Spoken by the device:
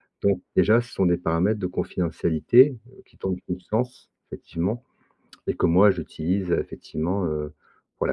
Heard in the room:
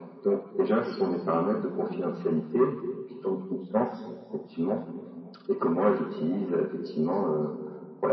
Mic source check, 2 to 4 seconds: echo only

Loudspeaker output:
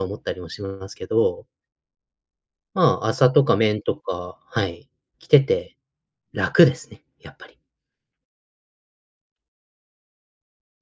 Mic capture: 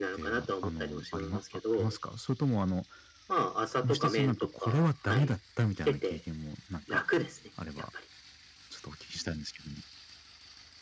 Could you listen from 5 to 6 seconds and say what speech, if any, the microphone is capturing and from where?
both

